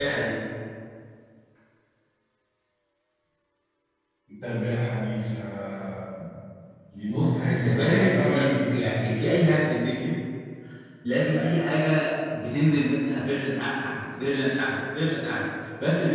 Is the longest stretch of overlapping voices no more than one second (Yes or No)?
No